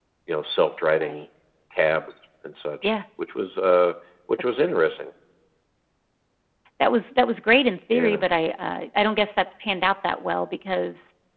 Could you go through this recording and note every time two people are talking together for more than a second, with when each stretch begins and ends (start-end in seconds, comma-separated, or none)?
none